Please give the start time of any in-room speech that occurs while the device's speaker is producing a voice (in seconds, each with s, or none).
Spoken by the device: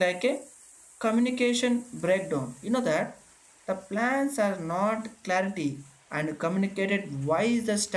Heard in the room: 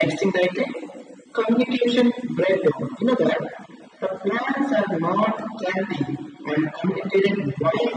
none